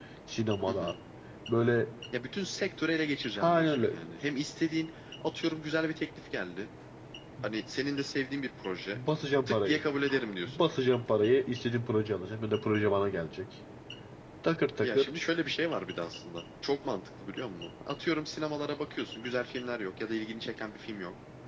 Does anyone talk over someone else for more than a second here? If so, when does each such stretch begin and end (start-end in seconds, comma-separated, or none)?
none